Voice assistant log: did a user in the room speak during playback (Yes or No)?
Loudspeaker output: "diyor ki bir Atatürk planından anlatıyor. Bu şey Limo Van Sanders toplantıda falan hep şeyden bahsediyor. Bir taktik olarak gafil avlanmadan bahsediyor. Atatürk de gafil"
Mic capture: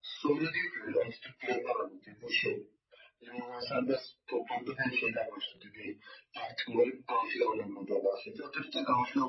No